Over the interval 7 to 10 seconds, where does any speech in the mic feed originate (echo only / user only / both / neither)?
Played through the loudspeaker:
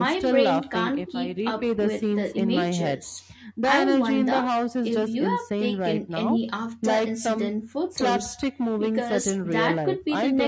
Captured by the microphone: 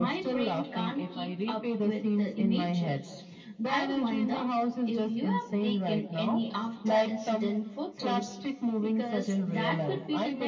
echo only